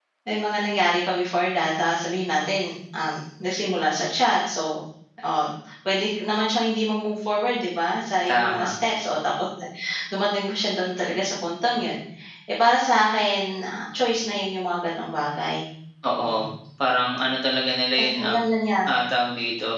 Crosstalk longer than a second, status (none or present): none